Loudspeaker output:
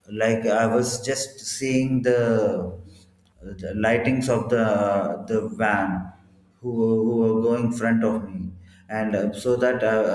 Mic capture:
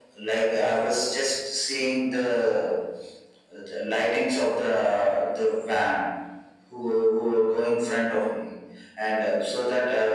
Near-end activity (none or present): none